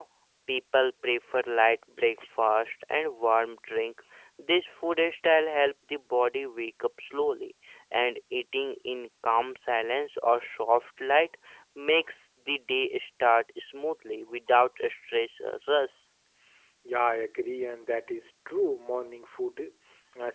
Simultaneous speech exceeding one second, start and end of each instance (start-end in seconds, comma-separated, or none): none